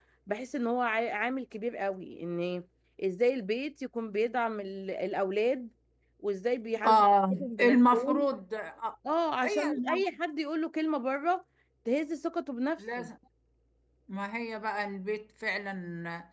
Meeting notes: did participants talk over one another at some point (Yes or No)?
Yes